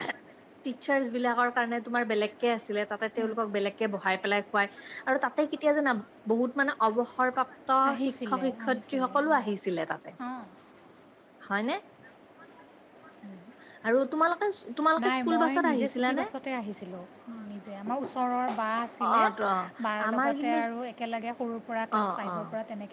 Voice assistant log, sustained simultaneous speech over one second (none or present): present